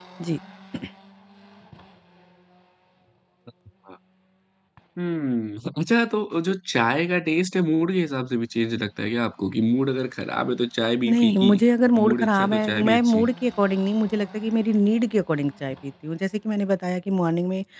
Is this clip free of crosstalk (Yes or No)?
No